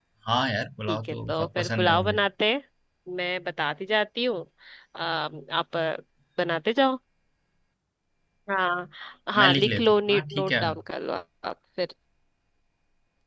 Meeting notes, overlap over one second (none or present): present